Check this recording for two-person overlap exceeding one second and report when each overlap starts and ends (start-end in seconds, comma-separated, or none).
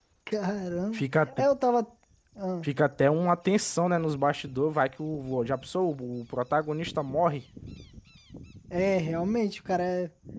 none